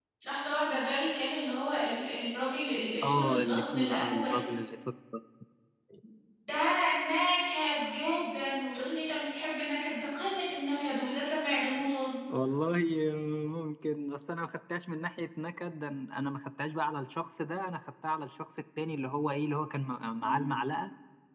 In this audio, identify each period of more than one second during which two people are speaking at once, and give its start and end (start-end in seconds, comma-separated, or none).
3.0-4.4